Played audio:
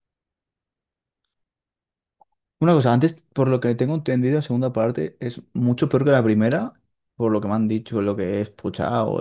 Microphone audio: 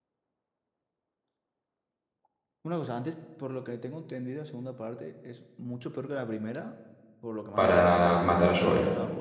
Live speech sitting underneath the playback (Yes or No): No